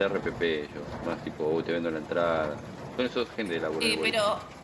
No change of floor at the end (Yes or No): No